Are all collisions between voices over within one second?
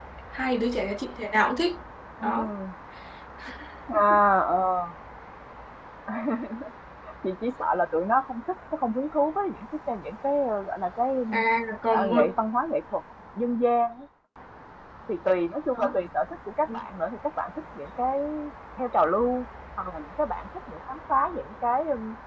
Yes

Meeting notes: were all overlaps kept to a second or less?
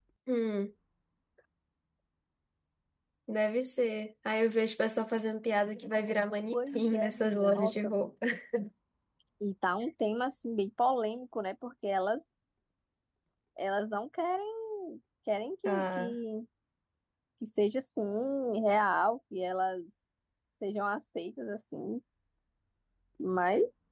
No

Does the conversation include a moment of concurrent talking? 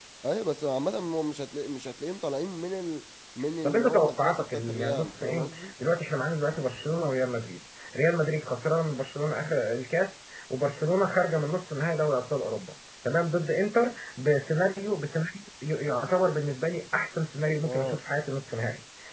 Yes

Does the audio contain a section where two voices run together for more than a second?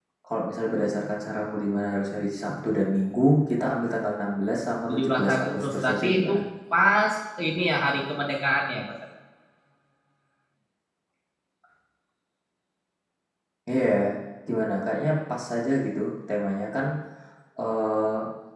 Yes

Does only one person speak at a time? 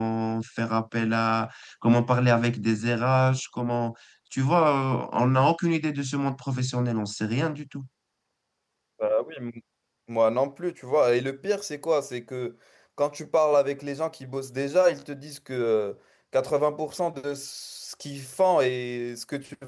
Yes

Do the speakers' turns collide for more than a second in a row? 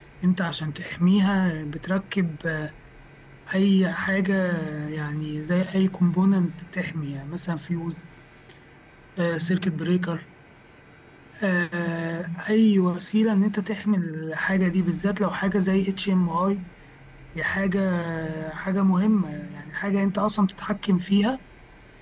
No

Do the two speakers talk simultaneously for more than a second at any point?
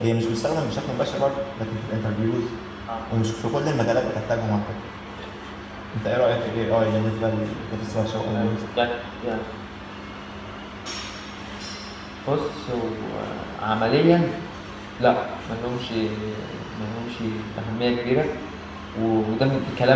No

